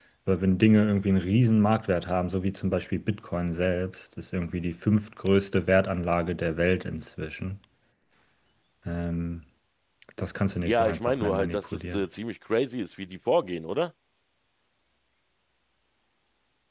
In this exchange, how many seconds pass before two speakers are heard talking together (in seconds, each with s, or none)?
10.7 s